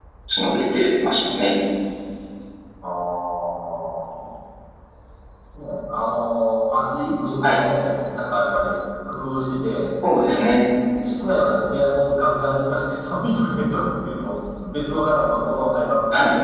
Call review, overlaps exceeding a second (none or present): none